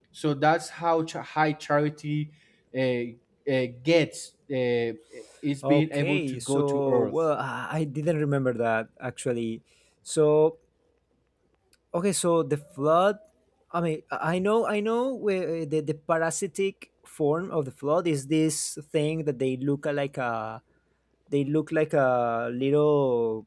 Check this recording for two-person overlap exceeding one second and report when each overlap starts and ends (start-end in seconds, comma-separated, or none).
5.7-7.1